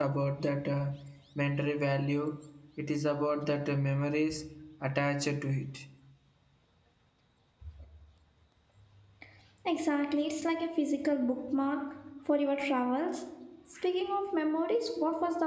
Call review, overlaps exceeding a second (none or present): none